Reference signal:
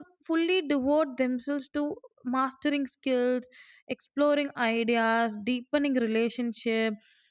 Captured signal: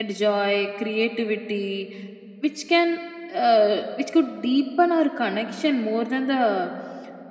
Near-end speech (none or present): present